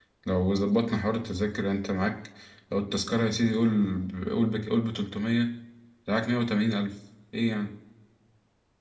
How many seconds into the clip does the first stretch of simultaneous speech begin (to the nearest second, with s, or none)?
none